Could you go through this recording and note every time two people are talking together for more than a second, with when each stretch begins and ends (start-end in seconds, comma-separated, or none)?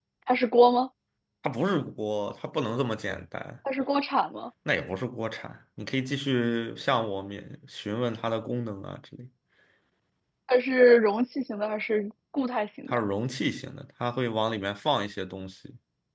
none